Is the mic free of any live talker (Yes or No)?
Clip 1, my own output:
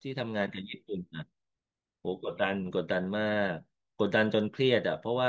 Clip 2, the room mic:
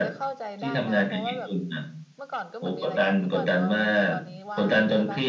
No